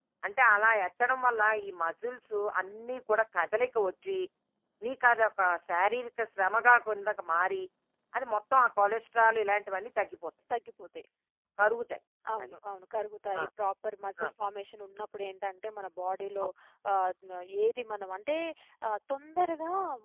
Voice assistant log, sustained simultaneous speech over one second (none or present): none